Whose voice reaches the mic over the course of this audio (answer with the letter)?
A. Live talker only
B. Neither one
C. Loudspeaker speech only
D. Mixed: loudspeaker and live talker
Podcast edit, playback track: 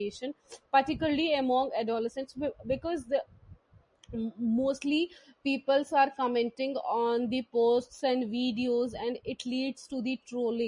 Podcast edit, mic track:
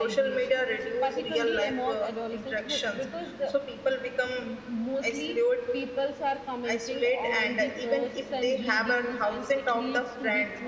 D